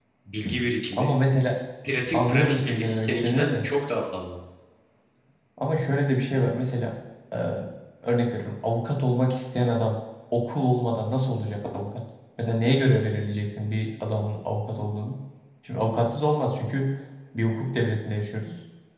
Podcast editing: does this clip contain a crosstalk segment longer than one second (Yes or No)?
Yes